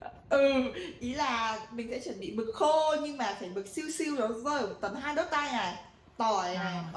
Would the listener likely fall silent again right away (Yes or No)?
Yes